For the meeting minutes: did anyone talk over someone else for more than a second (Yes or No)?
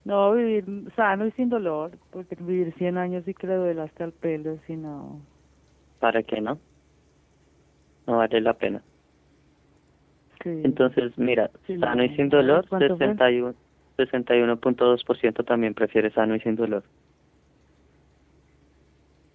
Yes